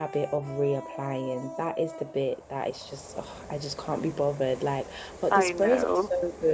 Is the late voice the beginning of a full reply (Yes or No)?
No